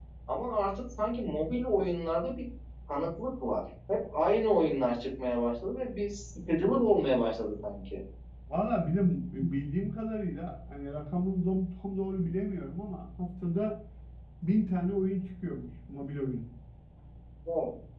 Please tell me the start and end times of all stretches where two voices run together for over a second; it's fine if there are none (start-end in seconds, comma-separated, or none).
none